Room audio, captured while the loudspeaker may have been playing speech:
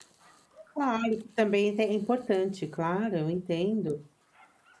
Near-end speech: present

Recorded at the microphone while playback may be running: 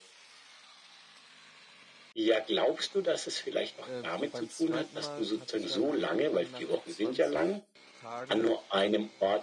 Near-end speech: present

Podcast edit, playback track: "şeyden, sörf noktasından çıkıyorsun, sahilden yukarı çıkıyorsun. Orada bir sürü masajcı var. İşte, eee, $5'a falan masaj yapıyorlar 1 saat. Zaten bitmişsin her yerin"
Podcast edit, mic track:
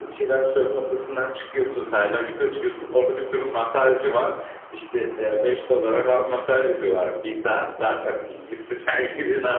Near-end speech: none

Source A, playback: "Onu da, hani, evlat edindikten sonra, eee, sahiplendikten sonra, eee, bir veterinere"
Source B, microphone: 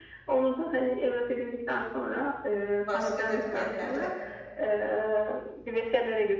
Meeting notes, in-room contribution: present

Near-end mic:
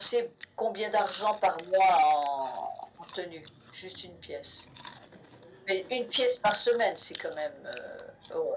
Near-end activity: none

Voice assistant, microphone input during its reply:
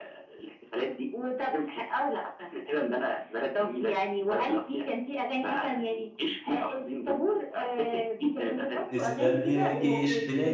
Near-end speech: present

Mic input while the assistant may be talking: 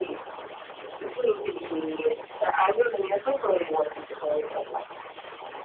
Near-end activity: none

